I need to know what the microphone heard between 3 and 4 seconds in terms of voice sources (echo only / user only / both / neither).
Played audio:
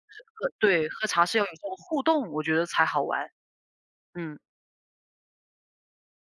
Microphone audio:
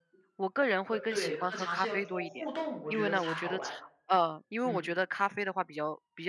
both